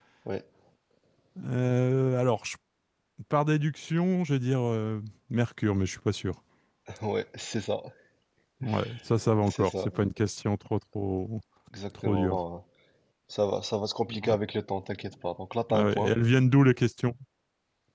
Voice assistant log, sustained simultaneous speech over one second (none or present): none